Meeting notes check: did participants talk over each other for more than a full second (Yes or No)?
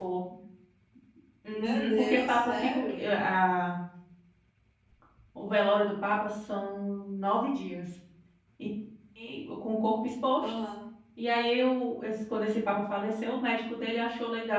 Yes